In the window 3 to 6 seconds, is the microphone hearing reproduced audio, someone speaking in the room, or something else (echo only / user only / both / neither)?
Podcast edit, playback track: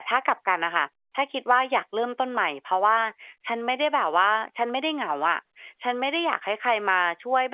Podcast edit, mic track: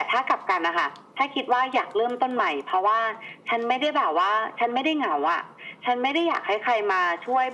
echo only